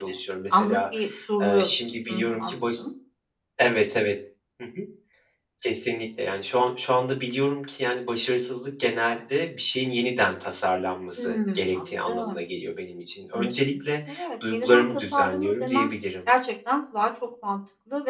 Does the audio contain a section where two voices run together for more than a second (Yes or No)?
Yes